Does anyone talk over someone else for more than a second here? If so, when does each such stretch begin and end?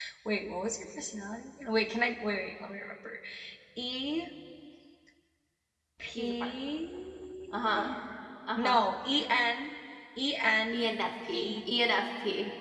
none

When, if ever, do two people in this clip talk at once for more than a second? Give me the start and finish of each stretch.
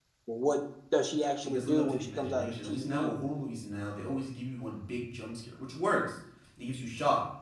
1.4-3.1

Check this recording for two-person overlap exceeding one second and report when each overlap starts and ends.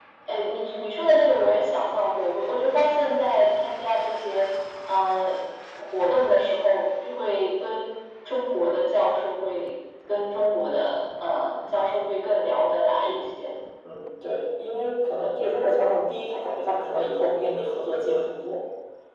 none

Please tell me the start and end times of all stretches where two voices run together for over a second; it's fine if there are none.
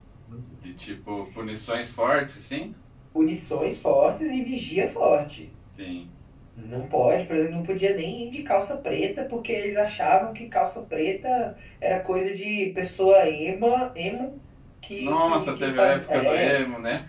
15.0-16.6

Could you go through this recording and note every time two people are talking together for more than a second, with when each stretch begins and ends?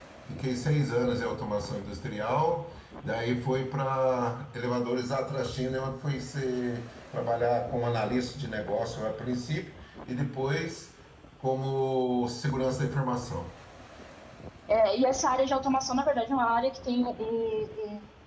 none

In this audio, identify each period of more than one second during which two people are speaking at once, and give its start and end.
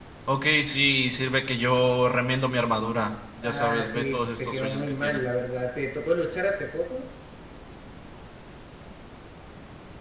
3.4-5.2

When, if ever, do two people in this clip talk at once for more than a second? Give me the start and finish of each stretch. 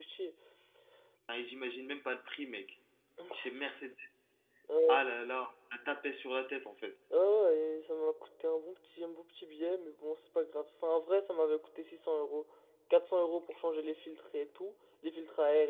none

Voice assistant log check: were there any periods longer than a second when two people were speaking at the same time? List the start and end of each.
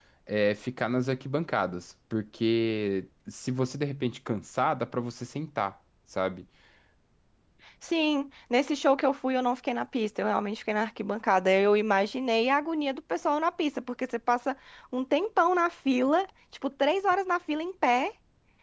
none

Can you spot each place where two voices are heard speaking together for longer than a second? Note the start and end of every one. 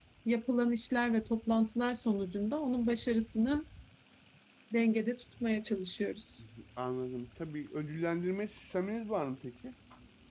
none

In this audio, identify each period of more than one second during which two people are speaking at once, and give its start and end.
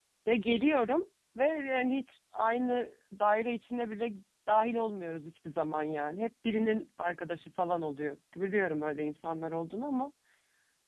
none

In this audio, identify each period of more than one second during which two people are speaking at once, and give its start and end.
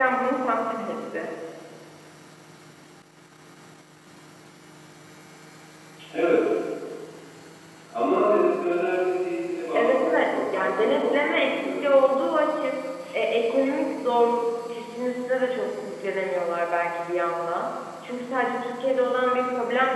9.7-11.9

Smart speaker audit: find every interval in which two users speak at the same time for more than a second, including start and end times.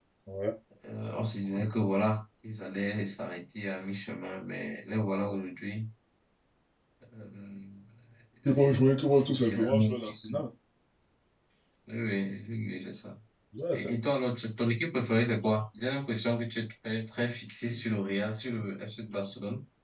8.6-10.3

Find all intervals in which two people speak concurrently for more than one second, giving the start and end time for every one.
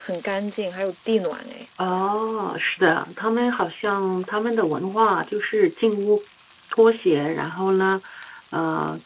none

